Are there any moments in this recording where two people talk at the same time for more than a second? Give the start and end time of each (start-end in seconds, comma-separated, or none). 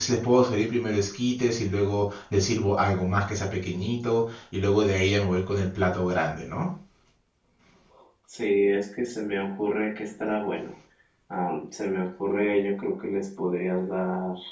none